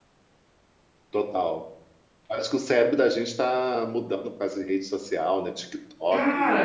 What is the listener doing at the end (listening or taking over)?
taking over